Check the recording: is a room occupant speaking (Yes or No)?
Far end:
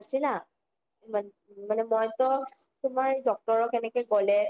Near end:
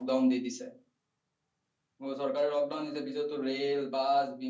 Yes